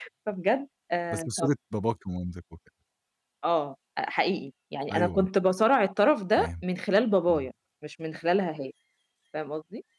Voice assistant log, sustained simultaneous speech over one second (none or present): none